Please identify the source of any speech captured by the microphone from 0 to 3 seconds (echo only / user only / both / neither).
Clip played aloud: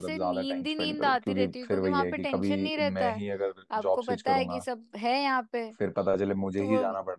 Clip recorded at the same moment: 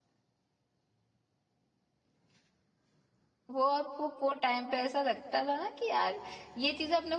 neither